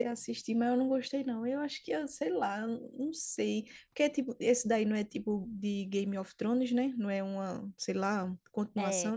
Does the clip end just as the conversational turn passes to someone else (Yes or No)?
Yes